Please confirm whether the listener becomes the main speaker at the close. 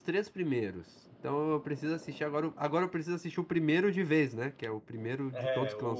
Yes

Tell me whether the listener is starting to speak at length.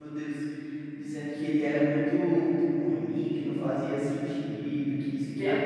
Yes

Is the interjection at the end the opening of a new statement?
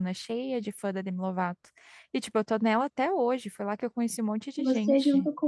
Yes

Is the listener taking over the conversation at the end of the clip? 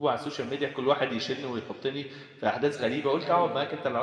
No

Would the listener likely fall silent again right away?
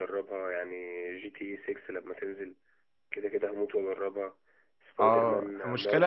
No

